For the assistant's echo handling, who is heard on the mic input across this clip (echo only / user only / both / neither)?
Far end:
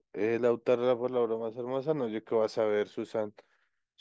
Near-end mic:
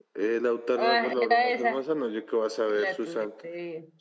both